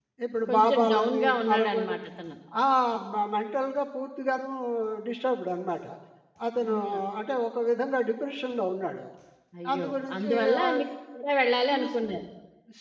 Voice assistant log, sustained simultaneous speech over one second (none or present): present